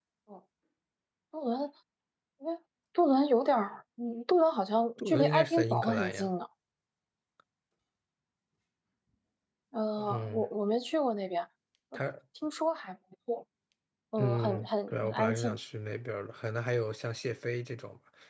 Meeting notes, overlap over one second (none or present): present